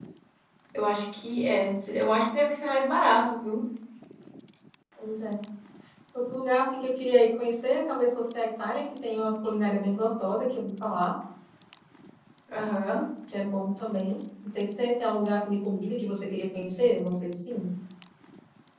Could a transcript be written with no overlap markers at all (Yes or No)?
Yes